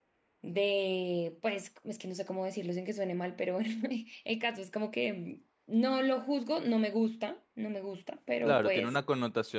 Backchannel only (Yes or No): No